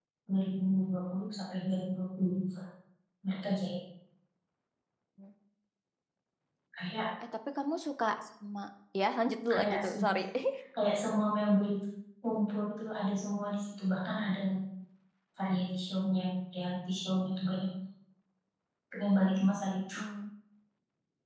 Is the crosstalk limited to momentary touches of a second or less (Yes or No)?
Yes